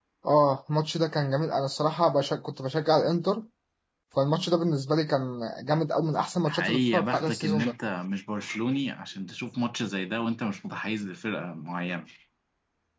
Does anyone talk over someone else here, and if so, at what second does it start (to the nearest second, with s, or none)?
6 s